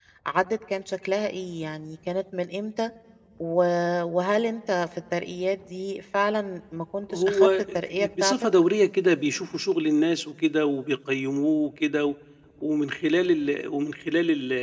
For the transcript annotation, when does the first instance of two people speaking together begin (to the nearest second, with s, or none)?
7 s